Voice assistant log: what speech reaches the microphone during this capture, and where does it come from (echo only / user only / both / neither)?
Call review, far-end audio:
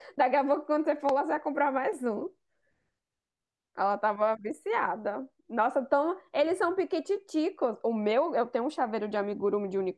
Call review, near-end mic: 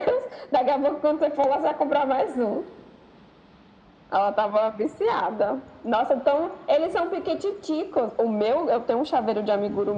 echo only